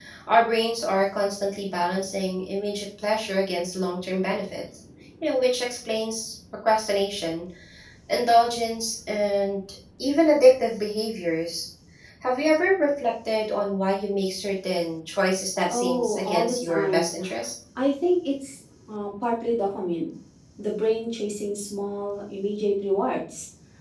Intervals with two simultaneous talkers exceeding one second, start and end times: 15.7-17.1

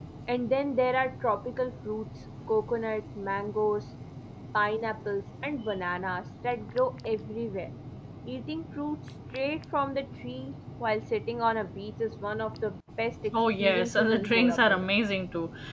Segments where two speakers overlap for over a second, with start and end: 13.6-14.9

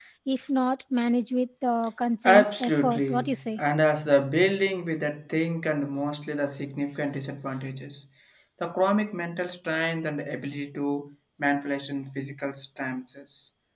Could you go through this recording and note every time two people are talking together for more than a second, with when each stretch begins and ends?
2.2-3.6

